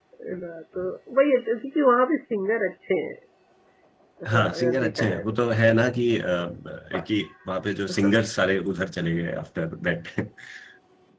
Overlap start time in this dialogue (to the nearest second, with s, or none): 4 s